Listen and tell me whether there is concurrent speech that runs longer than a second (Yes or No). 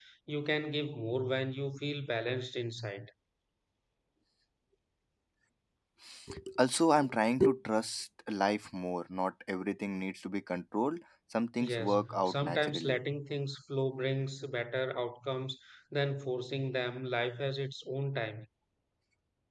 Yes